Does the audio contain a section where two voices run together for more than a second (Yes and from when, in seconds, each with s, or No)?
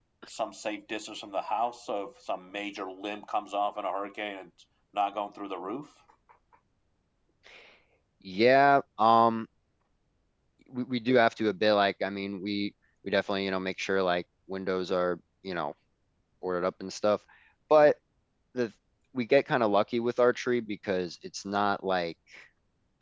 No